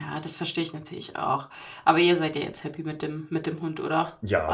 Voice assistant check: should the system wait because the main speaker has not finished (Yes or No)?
No